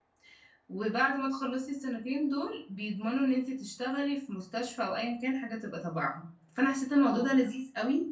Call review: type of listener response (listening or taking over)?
listening